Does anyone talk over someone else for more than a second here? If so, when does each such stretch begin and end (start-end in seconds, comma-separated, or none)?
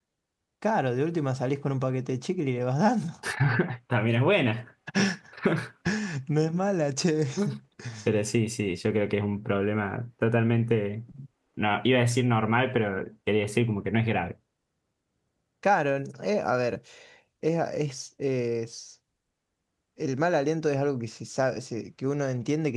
none